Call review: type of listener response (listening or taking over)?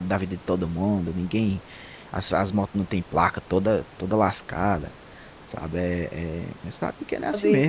taking over